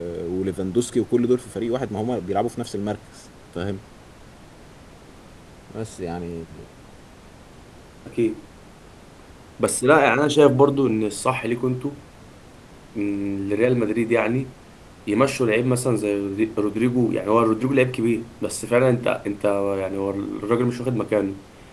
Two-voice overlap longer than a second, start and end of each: none

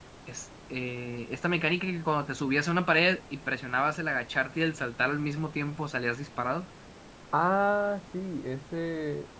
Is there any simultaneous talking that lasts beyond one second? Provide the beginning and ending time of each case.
none

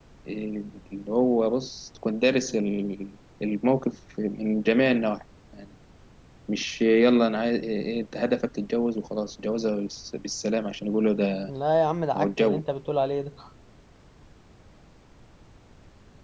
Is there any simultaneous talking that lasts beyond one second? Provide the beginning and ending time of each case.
none

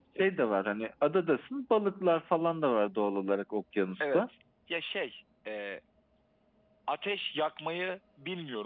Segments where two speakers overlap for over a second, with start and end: none

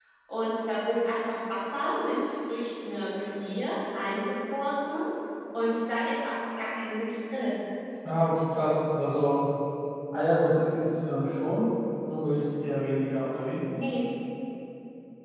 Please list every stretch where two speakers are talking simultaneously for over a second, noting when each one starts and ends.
none

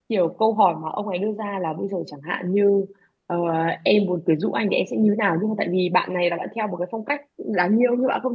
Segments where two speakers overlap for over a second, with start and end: none

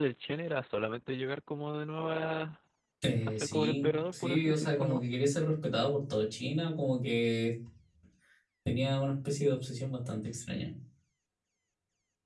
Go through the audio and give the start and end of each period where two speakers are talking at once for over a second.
3.3-5.0

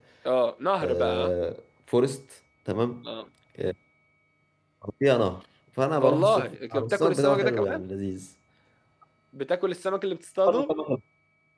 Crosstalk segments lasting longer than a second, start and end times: 6.0-7.8

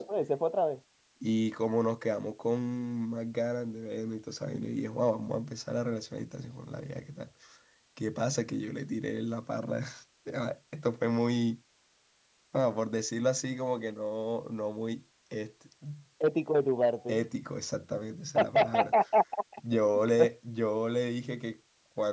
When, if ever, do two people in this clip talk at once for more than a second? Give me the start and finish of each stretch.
none

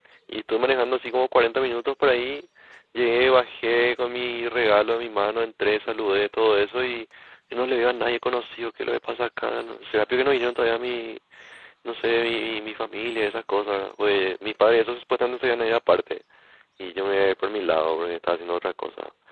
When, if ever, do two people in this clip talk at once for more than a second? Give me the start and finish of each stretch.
none

